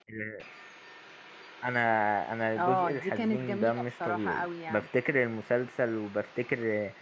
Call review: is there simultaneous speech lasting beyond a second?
Yes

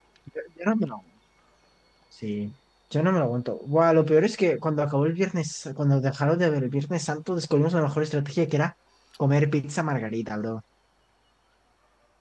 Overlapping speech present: No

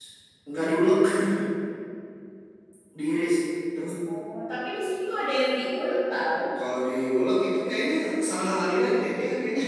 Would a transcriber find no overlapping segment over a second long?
Yes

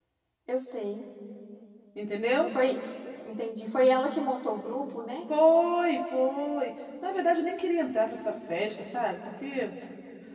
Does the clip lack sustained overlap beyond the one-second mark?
Yes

